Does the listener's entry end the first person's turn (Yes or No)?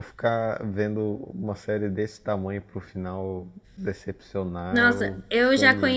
Yes